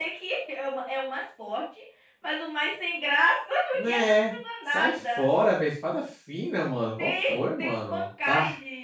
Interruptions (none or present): present